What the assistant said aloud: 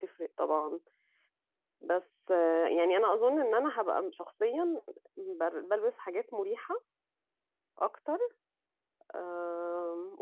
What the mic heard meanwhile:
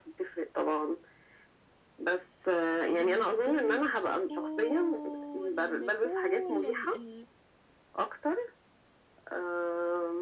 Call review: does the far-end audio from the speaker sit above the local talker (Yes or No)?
Yes